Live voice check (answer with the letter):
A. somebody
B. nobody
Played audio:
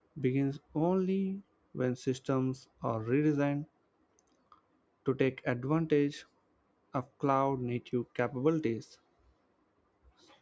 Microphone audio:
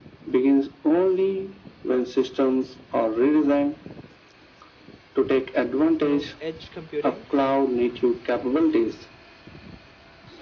A